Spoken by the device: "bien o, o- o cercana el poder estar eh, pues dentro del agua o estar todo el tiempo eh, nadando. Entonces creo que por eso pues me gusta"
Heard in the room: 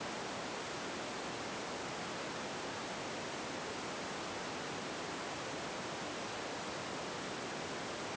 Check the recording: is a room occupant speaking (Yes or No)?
No